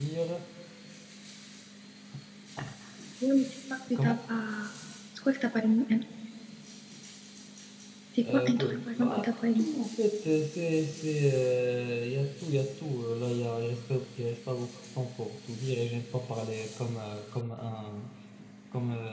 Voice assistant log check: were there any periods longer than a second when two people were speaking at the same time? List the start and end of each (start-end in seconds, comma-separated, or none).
8.2-9.7